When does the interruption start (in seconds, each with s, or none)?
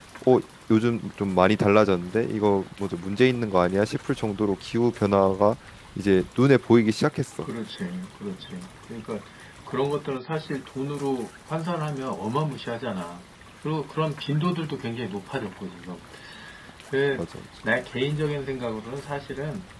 none